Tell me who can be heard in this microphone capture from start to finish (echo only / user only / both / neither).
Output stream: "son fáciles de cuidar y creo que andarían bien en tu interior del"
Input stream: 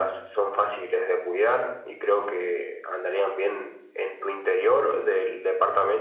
echo only